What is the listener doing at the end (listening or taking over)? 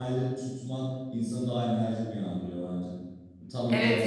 taking over